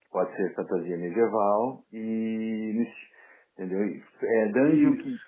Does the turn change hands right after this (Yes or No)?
No